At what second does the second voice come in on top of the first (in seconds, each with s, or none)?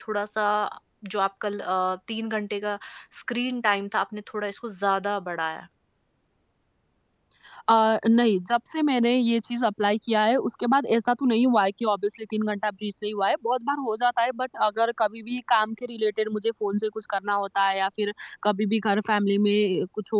none